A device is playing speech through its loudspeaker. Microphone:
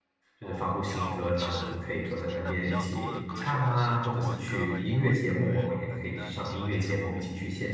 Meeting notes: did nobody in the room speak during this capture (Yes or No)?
No